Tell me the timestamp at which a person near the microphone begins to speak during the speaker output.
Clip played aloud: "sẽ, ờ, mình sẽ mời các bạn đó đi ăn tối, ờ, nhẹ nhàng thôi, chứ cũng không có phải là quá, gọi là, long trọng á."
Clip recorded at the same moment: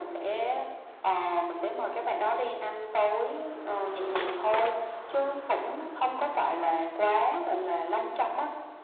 none

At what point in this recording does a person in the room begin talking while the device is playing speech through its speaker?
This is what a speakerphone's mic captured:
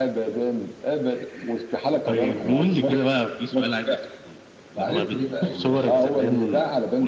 4.8 s

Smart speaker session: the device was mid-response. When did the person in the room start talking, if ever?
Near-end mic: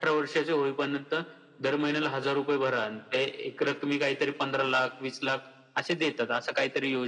none

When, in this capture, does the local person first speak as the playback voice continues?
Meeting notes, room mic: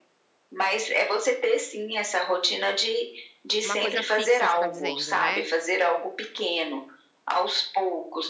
3.6 s

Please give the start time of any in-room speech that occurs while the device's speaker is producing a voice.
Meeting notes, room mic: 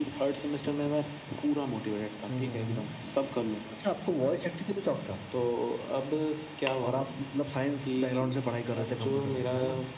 none

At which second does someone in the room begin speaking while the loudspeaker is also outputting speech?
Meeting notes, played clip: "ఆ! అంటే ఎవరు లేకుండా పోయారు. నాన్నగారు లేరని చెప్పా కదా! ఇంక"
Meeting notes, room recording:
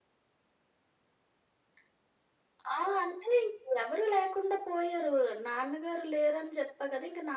none

